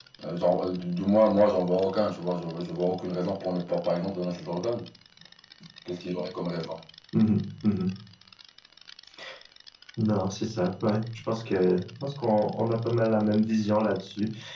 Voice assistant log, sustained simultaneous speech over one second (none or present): none